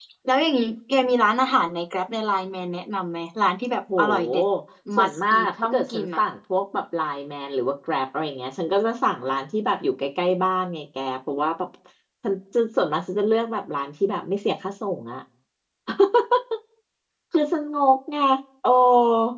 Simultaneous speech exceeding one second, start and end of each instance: 5.0-6.2

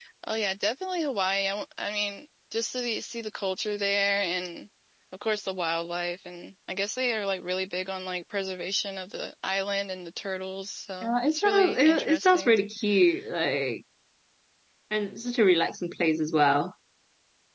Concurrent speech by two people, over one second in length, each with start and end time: 11.0-12.6

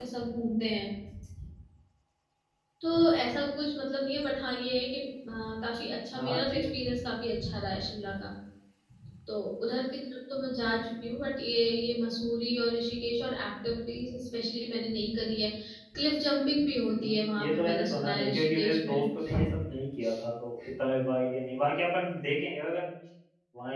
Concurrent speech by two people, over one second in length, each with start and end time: 16.9-19.0

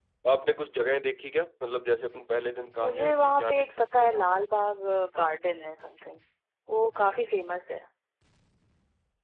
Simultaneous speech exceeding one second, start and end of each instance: 2.8-4.1

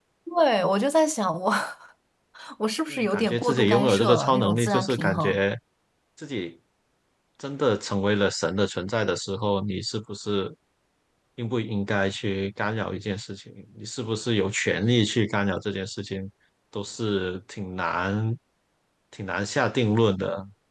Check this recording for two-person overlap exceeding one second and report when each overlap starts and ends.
2.9-5.4

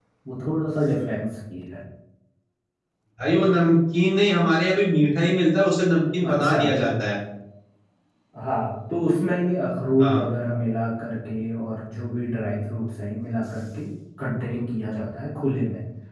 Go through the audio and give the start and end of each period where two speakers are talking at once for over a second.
none

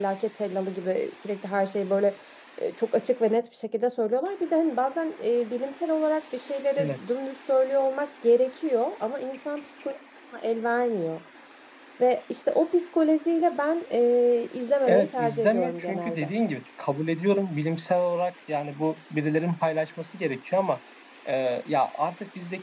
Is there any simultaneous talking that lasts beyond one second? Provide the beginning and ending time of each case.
14.9-16.3

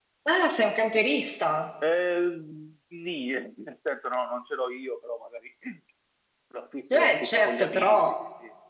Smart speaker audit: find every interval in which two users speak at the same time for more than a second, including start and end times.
6.9-8.1

